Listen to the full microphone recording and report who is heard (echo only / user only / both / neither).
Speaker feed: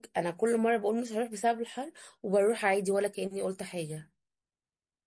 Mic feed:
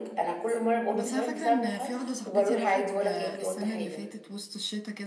both